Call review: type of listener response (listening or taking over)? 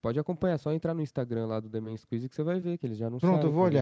taking over